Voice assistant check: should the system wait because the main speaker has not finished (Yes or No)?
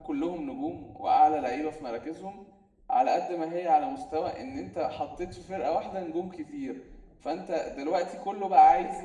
Yes